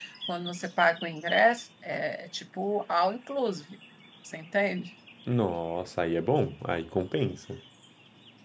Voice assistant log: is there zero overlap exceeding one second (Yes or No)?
Yes